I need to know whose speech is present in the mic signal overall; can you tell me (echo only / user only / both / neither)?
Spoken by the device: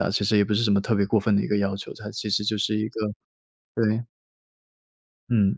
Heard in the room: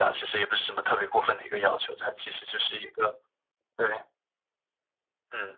echo only